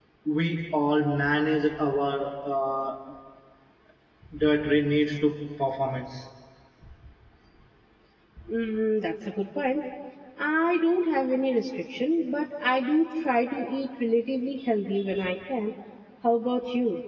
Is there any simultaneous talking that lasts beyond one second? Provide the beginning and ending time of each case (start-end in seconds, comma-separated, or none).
none